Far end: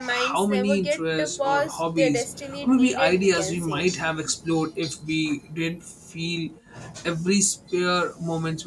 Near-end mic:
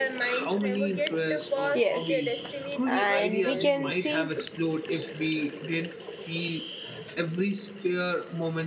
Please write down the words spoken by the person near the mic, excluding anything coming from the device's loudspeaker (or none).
yes and we can see